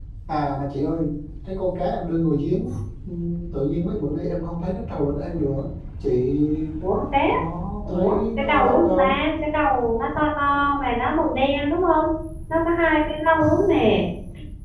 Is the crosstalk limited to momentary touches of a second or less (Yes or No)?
No